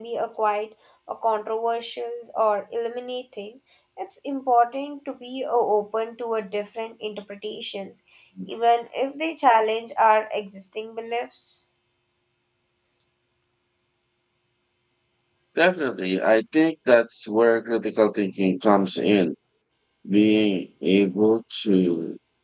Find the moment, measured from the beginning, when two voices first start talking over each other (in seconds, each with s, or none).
none